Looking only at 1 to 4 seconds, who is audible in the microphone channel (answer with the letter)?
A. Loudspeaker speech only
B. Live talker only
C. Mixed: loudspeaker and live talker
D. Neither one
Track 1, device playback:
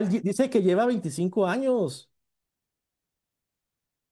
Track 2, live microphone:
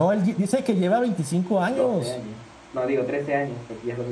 C